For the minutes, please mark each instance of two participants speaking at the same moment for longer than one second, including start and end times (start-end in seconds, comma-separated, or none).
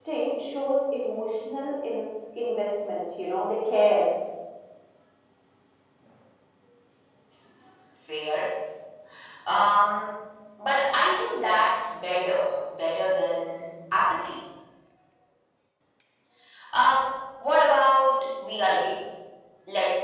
none